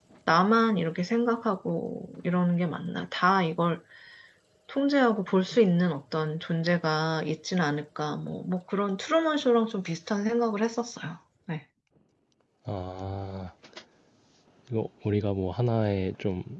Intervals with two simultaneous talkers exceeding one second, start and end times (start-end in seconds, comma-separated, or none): none